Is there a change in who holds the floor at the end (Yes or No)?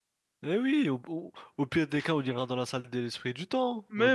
Yes